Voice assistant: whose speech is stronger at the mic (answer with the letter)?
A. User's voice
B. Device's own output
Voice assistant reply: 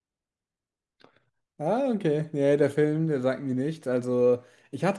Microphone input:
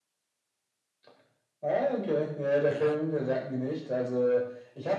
B